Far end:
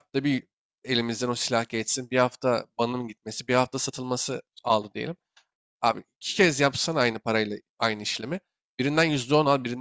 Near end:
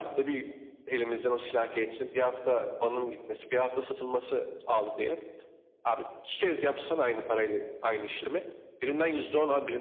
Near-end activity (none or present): none